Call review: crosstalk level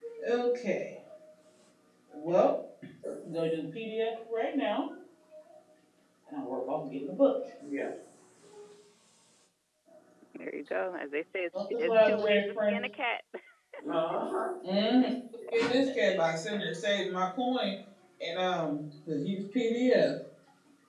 present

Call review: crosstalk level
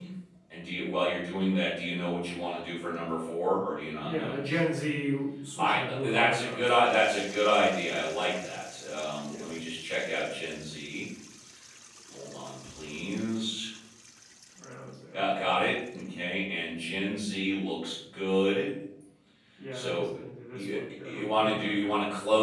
present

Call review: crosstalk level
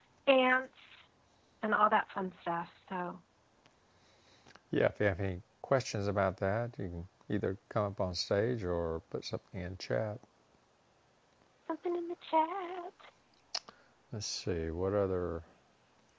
none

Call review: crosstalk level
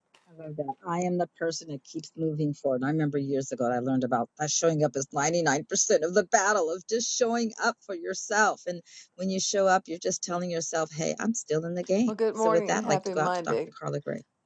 present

